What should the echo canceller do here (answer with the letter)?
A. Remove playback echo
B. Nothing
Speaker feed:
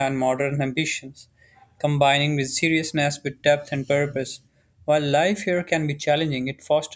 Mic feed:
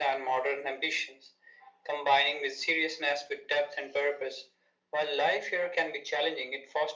A